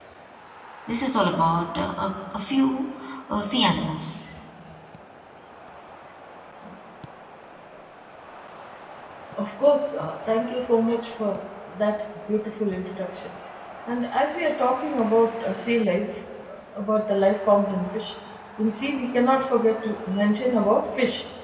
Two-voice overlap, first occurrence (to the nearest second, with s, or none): none